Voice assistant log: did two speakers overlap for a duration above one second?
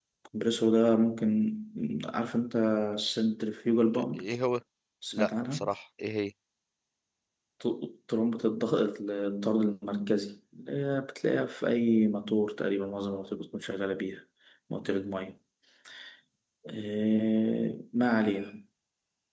No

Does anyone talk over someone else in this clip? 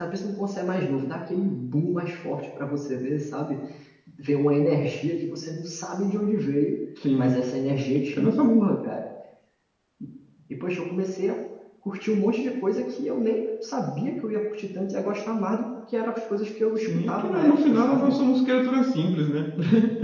Yes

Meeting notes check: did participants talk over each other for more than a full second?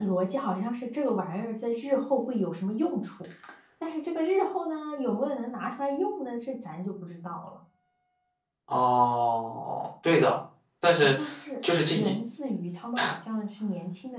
No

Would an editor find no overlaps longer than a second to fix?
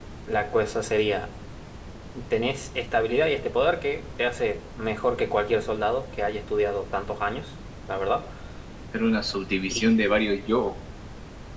Yes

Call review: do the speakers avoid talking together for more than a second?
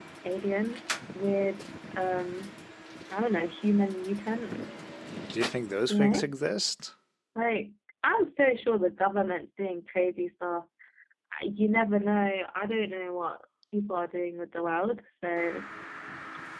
Yes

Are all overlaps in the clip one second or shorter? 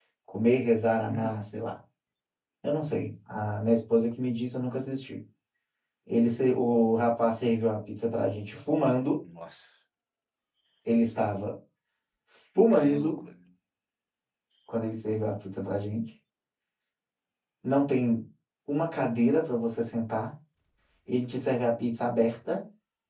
Yes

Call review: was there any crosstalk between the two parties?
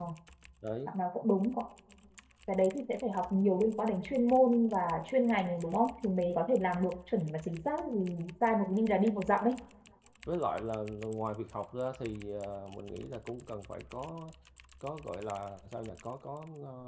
No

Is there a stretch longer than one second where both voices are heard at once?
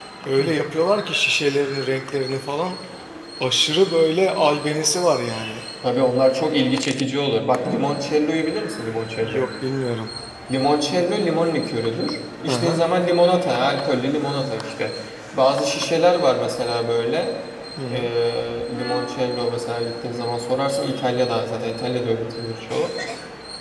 No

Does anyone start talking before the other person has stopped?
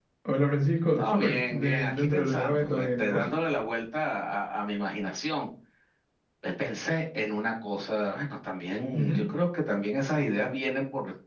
Yes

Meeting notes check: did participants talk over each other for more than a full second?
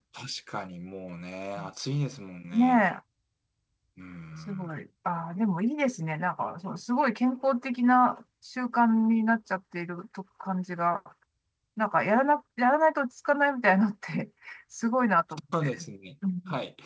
No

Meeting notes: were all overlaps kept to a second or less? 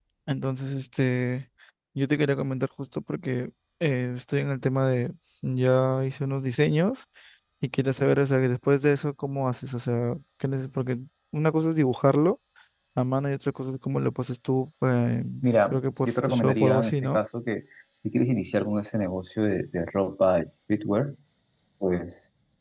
No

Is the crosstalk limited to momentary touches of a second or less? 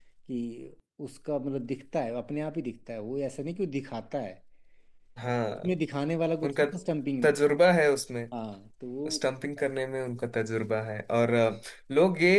Yes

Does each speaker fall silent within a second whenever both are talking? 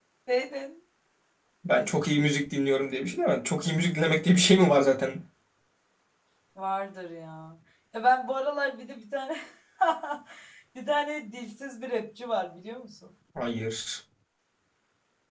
Yes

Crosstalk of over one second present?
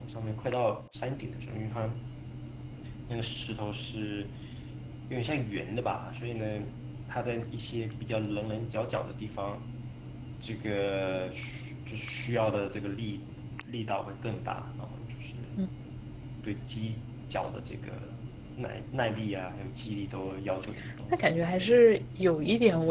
No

